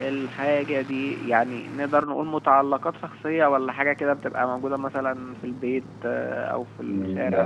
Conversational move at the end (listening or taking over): taking over